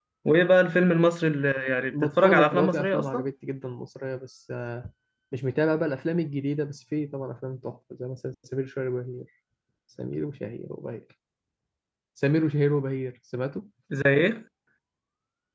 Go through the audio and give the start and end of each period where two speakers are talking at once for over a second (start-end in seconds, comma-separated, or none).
1.9-3.2